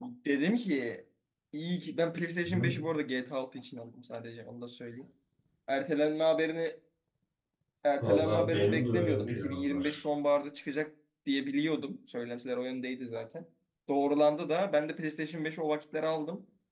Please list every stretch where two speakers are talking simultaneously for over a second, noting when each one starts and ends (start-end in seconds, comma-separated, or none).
8.0-10.0